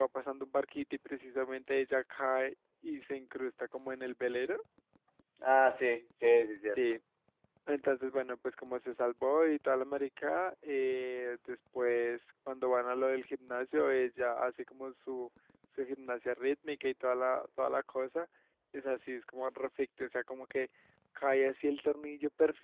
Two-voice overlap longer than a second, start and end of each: none

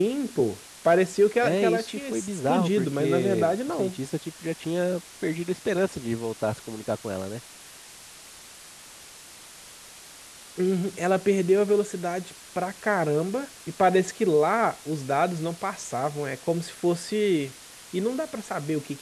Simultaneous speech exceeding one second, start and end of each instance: 1.4-4.0

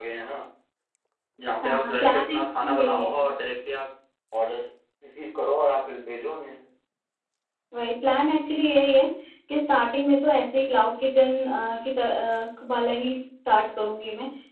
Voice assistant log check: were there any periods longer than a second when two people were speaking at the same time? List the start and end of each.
1.6-3.1

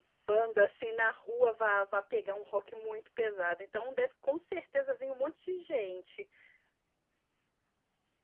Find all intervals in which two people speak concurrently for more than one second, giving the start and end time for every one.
none

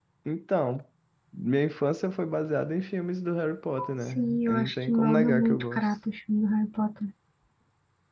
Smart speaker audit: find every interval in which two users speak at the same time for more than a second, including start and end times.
4.0-6.0

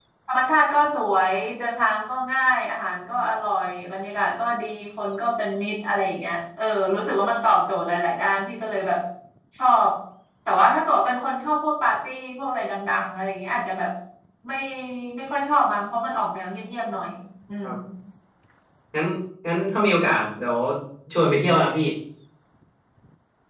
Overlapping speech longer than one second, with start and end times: none

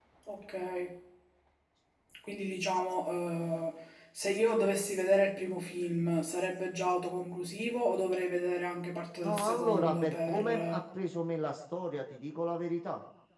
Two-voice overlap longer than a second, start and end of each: 9.2-10.8

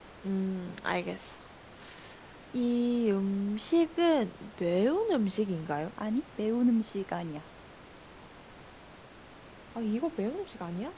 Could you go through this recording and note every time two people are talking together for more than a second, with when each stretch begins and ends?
none

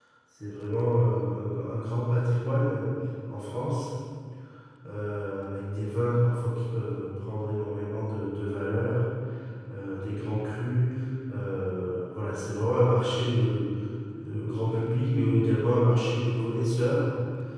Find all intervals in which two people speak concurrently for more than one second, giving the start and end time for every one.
none

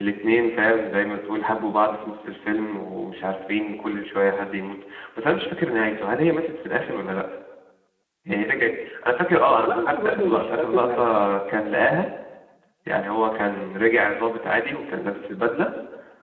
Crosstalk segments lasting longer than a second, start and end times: 9.5-11.0

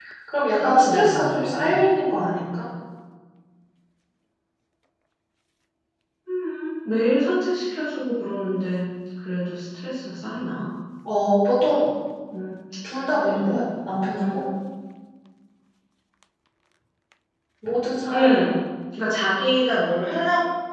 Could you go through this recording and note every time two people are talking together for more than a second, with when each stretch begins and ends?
0.6-1.8

